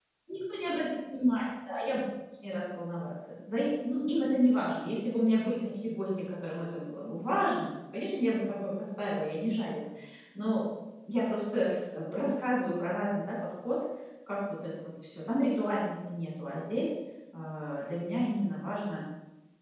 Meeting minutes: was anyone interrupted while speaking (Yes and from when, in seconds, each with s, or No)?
No